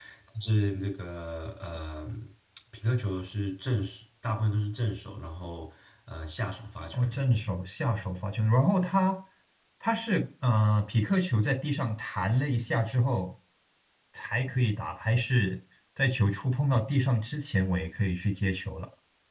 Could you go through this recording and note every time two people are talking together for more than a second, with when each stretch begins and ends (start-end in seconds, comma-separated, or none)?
none